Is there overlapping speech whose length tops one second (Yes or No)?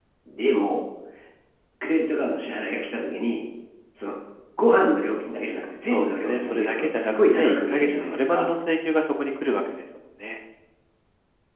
Yes